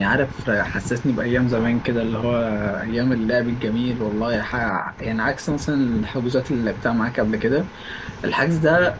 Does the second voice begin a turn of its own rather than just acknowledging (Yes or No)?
No